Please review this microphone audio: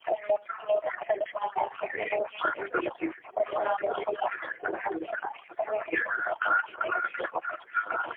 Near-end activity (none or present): none